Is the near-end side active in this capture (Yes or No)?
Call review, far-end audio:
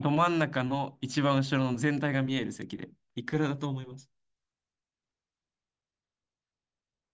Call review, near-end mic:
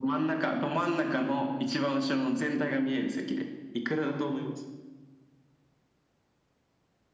No